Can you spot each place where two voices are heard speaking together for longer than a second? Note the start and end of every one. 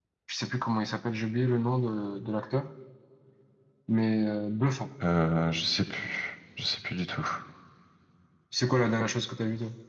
none

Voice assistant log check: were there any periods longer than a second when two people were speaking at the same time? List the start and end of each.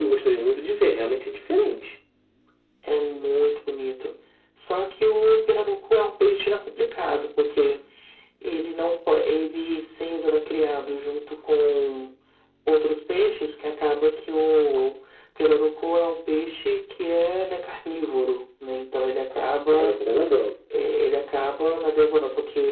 none

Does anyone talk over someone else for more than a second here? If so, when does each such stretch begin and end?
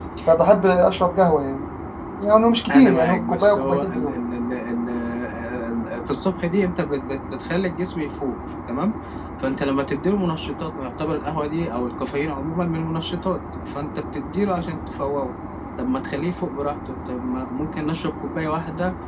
2.7-4.2

